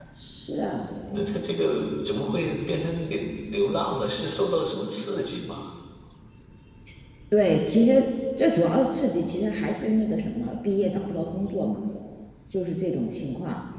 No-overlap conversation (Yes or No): Yes